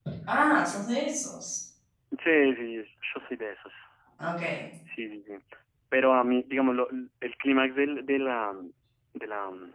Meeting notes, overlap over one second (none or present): none